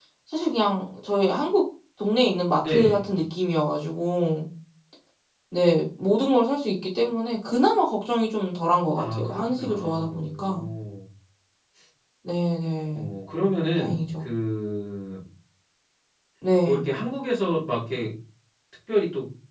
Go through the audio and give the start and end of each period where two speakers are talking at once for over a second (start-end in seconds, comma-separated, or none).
9.0-10.6